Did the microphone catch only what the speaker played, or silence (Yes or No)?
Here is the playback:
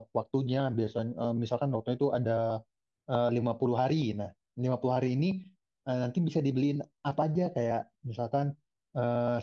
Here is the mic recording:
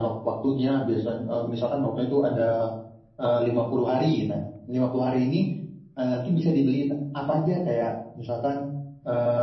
Yes